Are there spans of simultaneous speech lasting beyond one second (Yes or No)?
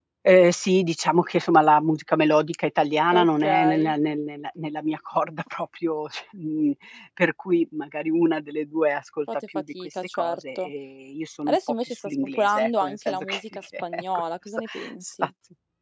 Yes